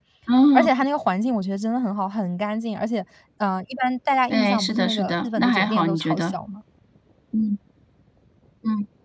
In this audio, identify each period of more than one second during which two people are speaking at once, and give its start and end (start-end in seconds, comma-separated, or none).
4.3-6.3